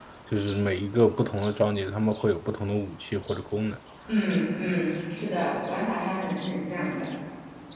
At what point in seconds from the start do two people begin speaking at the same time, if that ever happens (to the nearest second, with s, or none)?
none